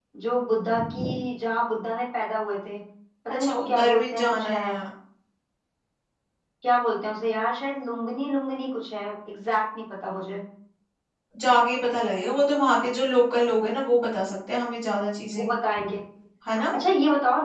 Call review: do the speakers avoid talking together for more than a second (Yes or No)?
No